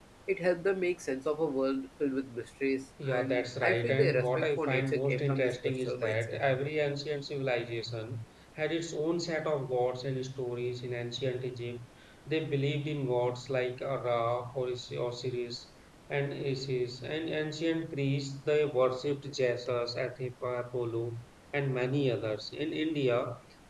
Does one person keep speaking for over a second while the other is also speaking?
Yes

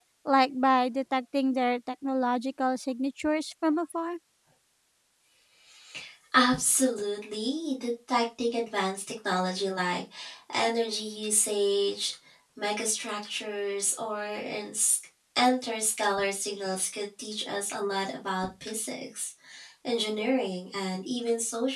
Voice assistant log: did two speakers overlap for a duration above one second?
No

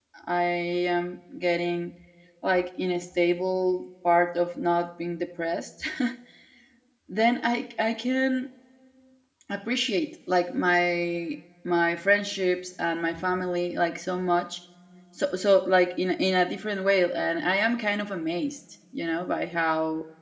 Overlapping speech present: No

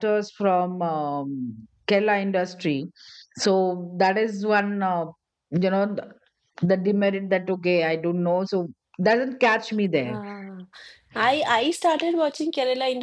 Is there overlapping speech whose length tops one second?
No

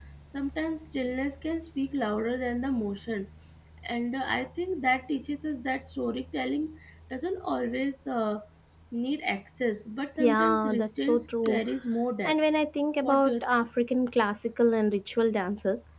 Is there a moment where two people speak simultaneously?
Yes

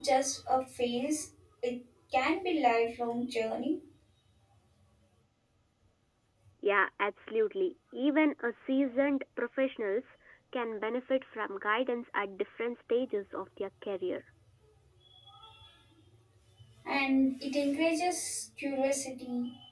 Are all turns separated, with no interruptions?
Yes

